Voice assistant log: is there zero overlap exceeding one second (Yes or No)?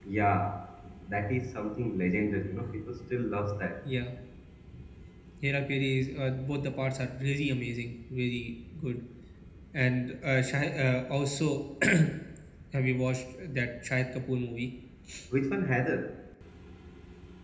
Yes